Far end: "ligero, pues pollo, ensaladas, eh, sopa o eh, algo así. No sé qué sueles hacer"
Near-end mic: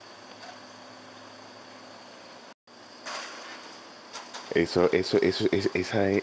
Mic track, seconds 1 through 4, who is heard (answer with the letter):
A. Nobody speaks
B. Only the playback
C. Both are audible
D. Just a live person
A